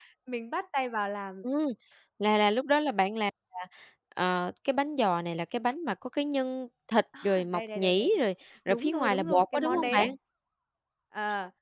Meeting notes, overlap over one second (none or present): present